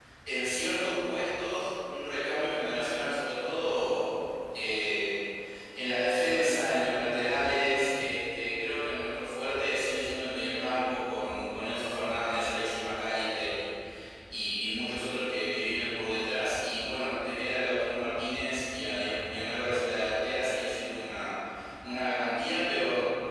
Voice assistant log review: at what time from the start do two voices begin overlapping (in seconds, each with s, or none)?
none